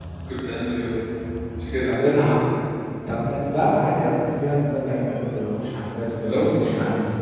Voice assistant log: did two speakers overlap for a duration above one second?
No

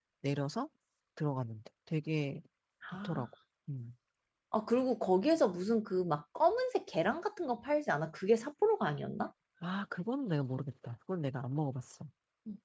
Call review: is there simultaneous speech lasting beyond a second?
No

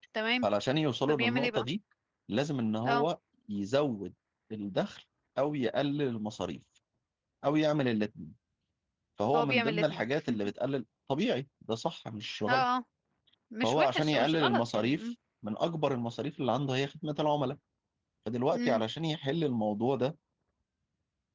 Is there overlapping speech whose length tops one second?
Yes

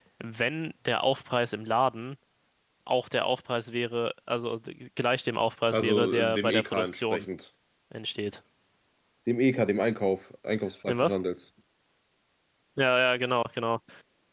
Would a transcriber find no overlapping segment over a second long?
No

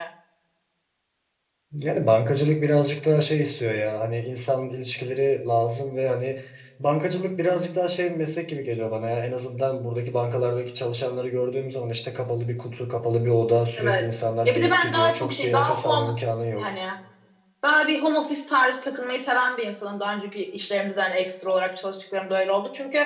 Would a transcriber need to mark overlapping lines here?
Yes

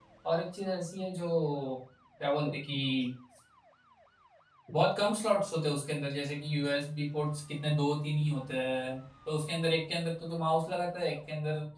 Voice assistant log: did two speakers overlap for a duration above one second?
No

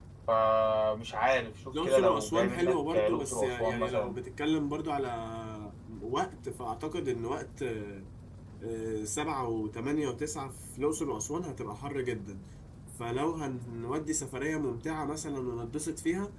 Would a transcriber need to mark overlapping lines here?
Yes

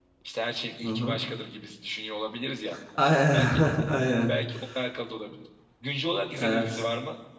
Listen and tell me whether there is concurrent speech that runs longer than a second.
No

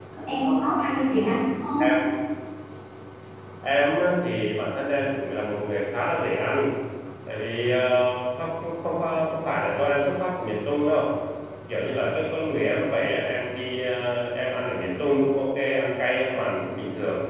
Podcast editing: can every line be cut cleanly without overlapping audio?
Yes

